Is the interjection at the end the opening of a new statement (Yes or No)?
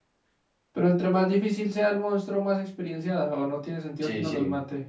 Yes